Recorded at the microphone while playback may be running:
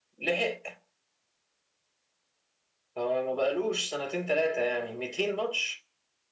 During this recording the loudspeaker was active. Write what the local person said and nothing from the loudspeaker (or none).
none